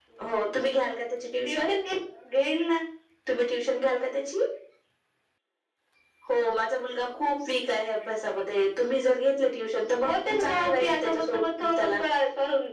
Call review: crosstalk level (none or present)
present